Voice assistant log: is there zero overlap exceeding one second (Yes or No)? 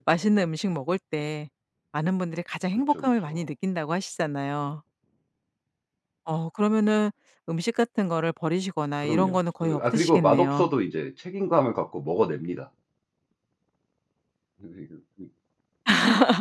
No